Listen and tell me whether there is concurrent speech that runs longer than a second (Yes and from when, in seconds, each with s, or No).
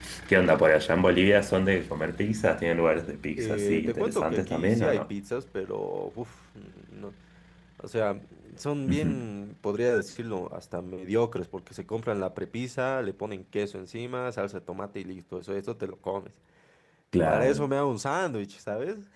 Yes, from 3.4 s